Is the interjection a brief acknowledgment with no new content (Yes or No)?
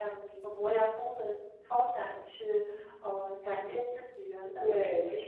No